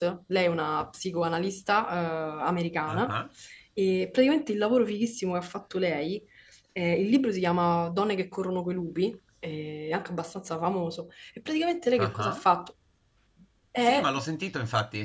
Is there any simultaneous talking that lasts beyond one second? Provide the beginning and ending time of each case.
none

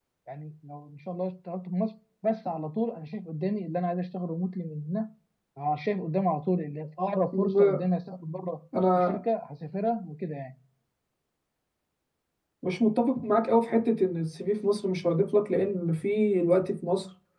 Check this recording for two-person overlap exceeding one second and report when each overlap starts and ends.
none

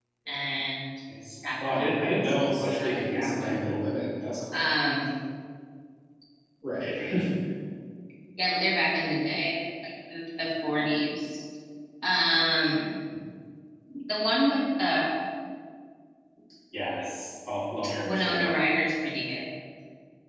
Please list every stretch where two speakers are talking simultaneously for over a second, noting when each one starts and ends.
1.6-3.7

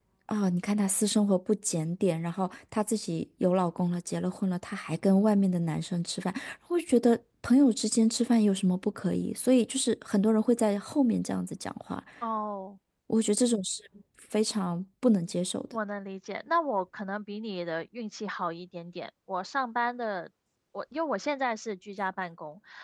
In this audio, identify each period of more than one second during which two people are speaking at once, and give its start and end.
none

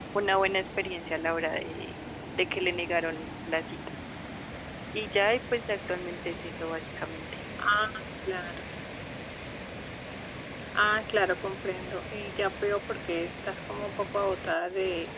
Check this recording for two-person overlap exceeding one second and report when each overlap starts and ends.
none

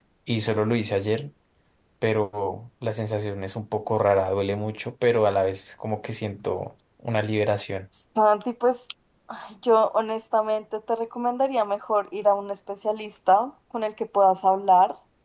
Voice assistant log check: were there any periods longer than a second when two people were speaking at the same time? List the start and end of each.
none

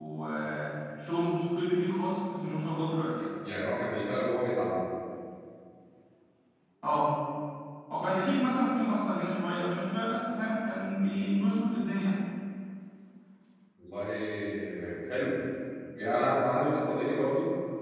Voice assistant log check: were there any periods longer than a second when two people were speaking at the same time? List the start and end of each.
none

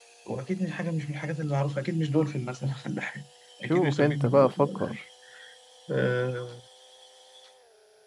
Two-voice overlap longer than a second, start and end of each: 3.6-5.0

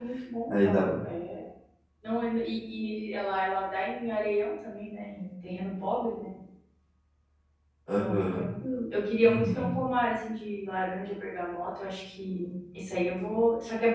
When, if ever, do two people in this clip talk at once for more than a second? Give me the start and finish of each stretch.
none

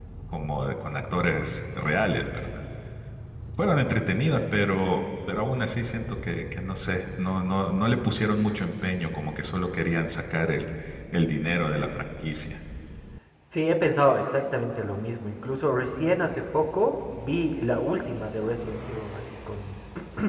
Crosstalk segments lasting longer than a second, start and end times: none

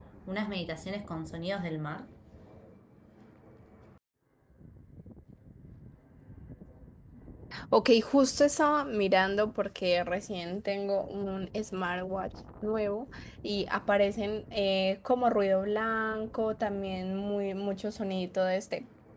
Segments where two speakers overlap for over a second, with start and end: none

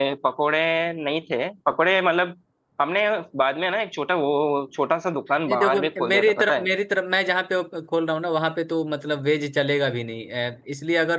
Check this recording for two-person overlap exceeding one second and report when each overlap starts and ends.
5.5-6.7

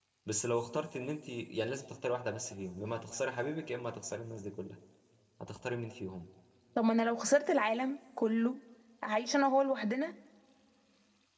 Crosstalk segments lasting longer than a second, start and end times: none

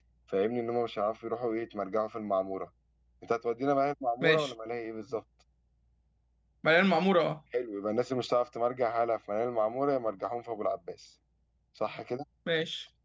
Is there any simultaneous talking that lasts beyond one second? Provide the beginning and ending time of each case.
none

